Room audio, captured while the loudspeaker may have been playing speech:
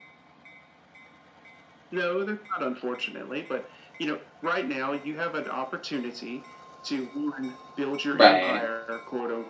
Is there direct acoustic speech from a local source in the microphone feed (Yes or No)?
Yes